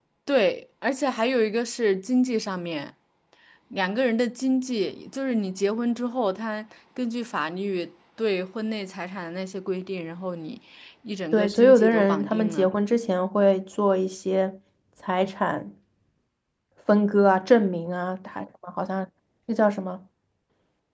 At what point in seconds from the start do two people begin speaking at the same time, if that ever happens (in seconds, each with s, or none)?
11.3 s